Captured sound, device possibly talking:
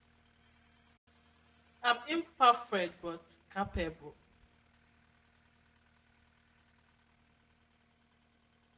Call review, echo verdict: none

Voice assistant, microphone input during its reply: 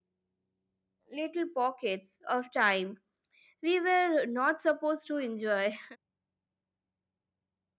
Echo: none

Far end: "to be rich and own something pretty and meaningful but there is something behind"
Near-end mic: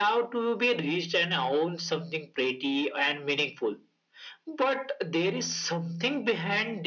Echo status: present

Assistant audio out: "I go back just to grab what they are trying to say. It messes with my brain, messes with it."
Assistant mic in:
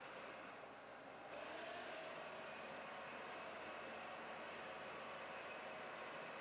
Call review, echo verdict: none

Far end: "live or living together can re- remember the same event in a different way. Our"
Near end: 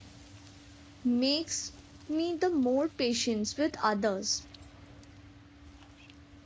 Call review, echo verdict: none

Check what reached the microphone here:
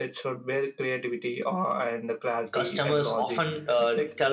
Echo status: present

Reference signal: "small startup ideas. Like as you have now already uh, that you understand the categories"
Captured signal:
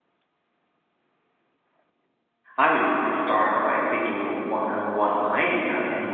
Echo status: none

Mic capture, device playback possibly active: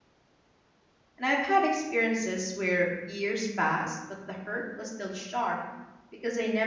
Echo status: none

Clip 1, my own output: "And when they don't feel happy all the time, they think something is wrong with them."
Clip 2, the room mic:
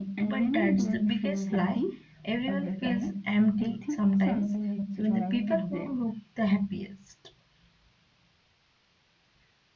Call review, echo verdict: present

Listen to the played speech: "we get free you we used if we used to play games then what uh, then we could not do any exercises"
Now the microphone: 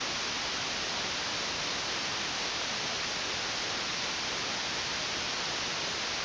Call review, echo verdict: none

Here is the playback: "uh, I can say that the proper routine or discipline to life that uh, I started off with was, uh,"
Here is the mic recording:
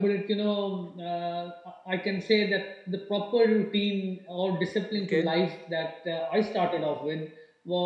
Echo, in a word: present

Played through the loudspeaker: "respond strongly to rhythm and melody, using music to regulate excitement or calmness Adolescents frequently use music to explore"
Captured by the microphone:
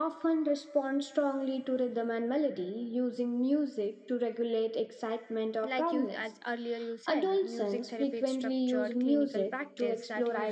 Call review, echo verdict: present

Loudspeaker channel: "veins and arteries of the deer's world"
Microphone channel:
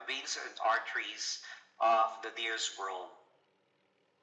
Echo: present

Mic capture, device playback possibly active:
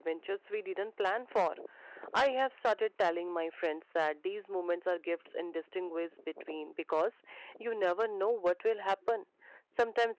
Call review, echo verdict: none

